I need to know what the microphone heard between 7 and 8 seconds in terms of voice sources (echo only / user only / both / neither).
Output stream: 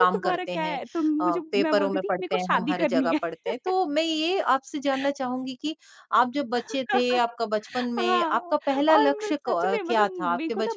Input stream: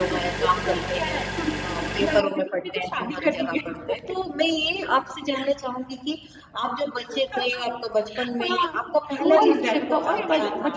echo only